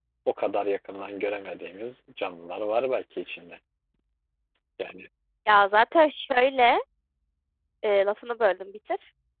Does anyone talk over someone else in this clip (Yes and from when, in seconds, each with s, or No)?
No